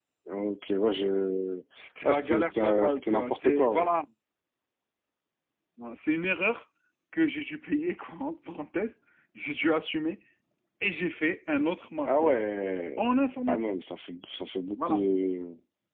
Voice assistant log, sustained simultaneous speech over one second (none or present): present